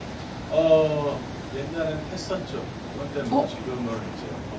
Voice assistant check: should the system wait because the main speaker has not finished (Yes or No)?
Yes